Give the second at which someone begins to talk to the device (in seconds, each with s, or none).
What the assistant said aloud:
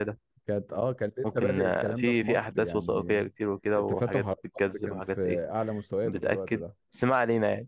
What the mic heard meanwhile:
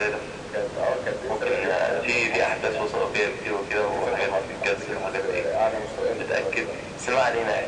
none